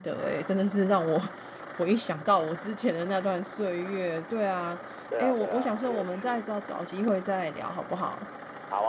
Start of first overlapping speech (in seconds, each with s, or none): 5.2 s